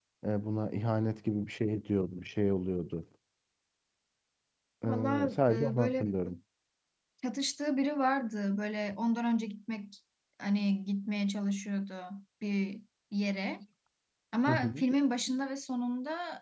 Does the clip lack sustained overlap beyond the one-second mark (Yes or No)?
No